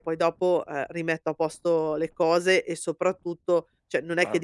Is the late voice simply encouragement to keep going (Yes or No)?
Yes